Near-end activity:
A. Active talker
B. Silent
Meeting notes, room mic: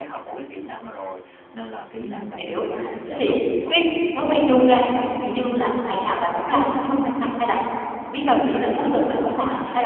A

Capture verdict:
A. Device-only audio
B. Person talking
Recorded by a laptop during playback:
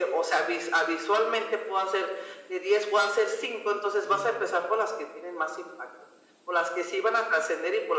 B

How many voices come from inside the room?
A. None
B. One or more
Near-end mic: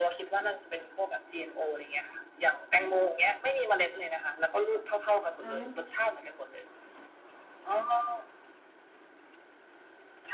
B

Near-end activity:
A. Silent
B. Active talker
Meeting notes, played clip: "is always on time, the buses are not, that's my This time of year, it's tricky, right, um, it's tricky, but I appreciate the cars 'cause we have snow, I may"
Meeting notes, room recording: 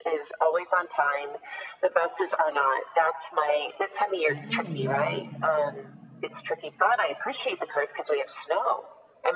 B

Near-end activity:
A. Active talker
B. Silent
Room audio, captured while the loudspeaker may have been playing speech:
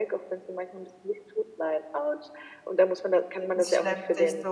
A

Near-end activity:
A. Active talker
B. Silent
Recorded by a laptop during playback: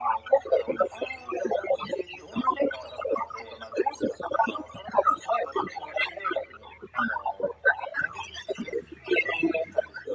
B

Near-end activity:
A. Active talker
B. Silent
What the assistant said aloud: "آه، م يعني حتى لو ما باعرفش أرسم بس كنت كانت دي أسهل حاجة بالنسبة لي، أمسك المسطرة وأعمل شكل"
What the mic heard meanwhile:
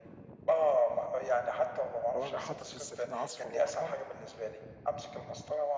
A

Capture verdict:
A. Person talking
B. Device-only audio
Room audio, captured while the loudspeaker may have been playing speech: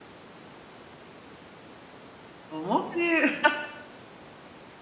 A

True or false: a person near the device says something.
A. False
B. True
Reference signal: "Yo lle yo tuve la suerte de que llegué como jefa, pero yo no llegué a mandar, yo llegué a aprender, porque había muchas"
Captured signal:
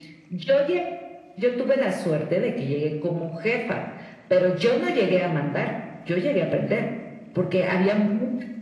A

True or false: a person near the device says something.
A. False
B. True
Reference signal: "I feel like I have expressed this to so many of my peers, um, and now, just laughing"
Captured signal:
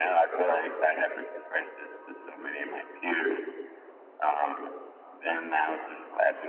A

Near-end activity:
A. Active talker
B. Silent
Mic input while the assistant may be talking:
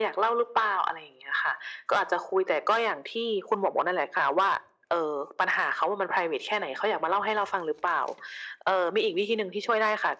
B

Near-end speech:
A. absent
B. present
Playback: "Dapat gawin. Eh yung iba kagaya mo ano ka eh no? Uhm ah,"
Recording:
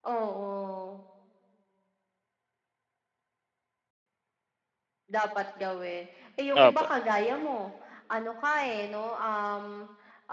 B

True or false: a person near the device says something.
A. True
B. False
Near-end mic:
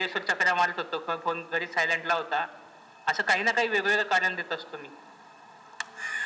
B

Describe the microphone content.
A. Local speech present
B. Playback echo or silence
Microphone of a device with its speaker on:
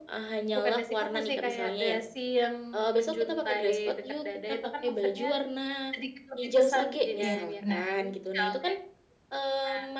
A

